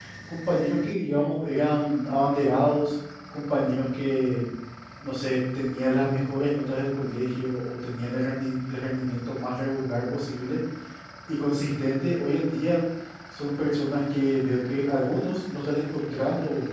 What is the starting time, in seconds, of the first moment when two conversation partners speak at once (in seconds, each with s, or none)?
none